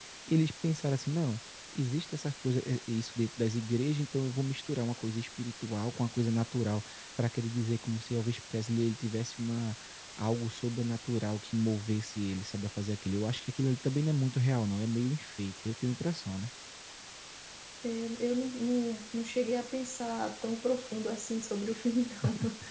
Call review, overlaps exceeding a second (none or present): none